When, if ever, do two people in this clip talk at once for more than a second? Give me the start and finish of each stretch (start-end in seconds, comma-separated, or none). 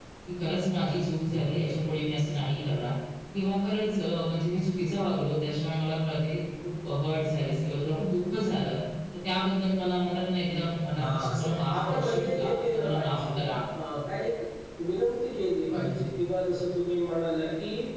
11.0-13.2